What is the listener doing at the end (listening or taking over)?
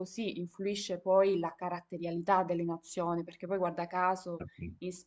listening